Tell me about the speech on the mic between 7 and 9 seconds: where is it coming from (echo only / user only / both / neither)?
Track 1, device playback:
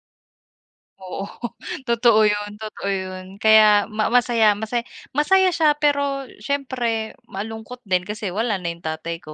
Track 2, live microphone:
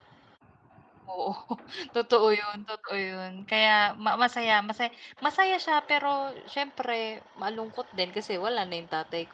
echo only